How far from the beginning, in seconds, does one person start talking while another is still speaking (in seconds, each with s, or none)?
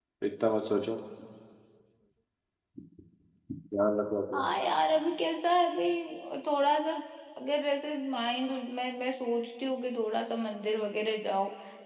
none